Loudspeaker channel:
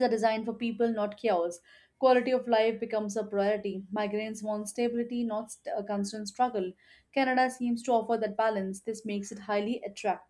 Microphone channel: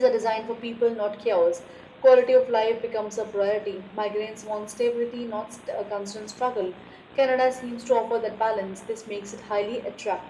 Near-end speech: none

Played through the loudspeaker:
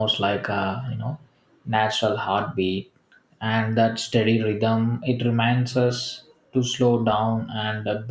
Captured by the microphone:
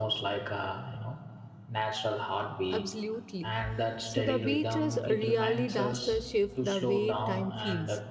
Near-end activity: present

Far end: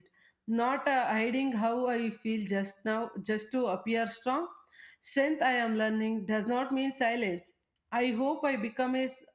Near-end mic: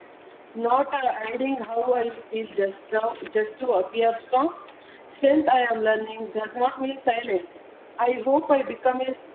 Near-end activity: none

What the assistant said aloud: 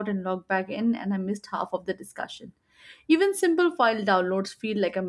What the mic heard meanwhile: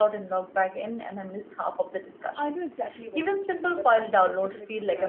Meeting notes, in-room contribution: present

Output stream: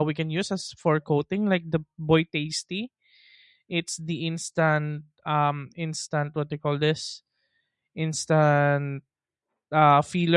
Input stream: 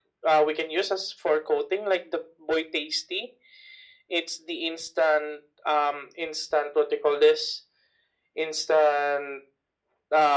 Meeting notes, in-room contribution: none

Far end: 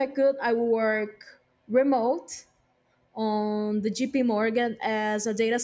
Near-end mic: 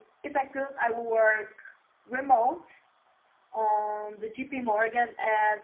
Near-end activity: none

